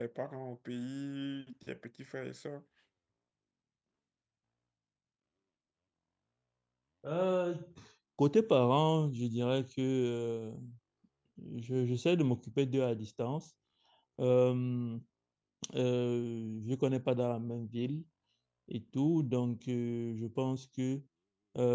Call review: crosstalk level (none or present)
none